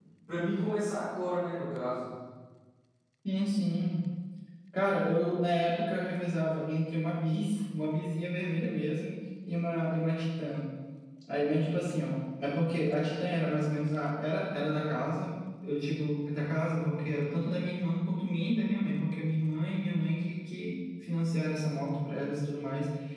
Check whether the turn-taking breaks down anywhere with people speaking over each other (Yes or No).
No